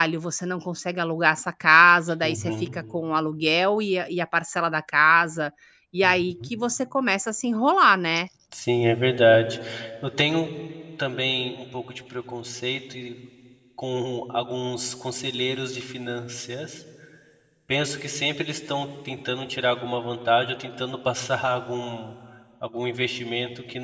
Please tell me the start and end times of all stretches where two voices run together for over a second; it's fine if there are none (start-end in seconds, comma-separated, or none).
none